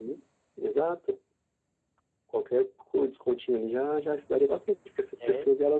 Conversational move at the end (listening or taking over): listening